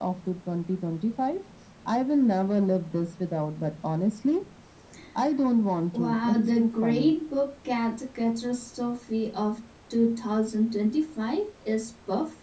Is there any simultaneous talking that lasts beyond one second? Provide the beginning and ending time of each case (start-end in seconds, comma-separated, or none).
5.9-7.1